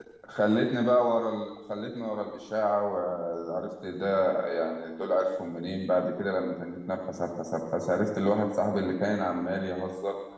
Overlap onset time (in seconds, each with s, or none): none